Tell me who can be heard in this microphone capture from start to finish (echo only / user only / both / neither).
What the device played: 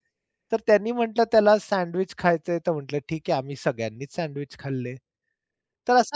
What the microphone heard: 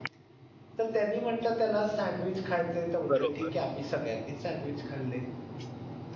both